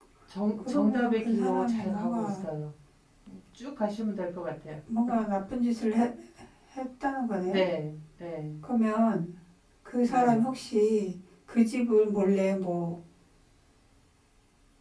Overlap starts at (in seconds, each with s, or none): 0.6 s